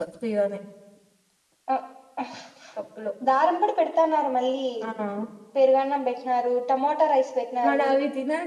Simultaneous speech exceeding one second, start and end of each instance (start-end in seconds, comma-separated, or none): none